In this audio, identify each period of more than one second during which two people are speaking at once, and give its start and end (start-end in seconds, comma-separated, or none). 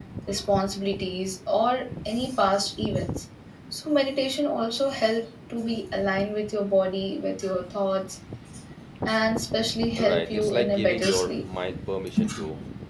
10.0-11.4